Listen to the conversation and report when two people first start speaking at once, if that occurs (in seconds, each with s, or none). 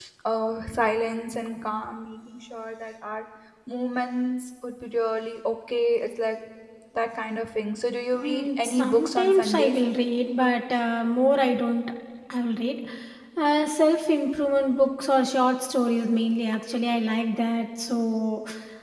8.1 s